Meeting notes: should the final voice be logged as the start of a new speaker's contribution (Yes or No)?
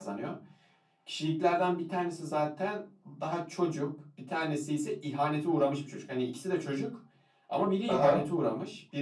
No